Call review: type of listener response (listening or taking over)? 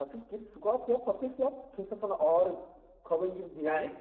taking over